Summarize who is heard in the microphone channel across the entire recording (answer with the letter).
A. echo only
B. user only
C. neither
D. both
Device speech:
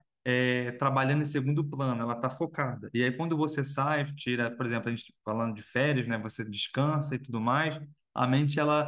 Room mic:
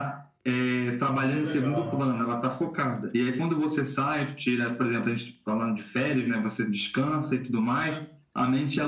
D